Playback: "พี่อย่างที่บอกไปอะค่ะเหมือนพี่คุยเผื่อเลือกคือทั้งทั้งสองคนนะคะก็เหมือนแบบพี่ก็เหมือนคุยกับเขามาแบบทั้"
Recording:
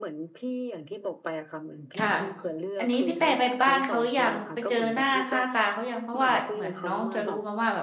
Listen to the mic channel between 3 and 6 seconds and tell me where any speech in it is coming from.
both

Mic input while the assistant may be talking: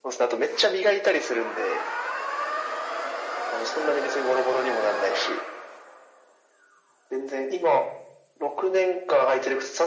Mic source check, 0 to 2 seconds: echo only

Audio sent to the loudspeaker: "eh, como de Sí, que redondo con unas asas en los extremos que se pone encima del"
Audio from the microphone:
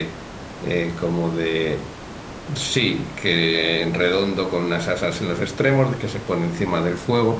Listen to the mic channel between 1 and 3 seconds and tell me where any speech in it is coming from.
echo only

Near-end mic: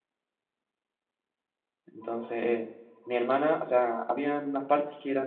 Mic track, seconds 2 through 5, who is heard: user only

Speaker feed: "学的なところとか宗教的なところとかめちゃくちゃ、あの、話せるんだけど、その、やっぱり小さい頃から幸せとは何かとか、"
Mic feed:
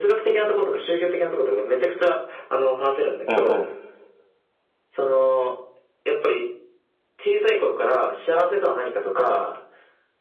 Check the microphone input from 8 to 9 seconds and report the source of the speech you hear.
echo only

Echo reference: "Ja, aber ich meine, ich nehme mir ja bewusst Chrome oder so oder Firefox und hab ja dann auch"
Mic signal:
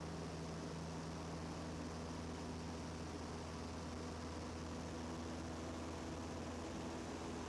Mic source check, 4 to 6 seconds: neither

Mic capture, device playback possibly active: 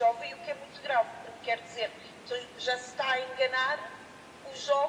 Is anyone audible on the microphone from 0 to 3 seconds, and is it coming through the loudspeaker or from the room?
echo only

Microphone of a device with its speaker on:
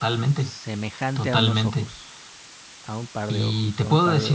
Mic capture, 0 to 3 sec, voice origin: both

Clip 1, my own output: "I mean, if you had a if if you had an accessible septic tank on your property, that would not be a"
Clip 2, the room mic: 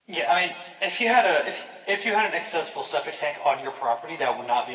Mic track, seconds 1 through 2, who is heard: echo only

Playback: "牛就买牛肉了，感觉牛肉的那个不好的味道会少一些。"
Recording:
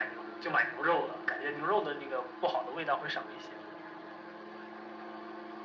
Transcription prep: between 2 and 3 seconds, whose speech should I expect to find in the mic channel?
echo only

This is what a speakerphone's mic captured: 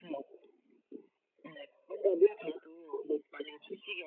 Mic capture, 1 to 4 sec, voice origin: echo only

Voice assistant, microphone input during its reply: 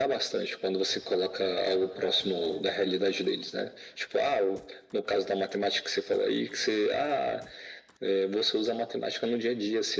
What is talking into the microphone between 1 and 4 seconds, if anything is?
echo only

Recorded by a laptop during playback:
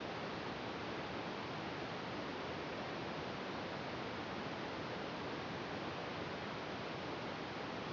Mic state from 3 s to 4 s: neither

